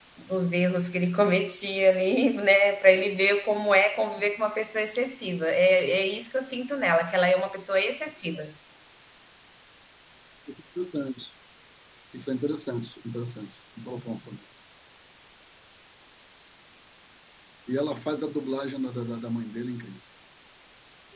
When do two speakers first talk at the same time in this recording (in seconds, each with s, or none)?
none